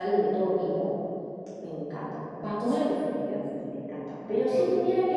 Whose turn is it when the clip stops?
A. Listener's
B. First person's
B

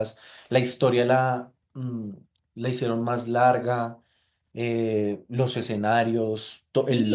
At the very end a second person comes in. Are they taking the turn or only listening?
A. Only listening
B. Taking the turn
B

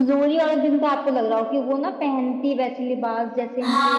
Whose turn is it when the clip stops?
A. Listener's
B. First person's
A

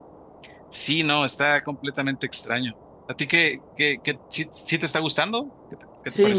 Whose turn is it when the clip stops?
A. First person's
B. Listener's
B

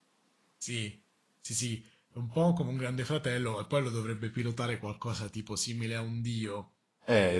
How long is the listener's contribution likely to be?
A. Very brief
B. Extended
B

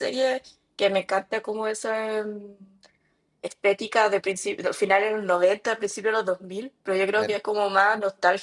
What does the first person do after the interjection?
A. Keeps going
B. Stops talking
A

